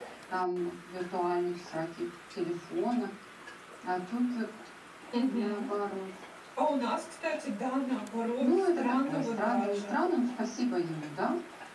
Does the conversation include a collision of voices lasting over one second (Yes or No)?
Yes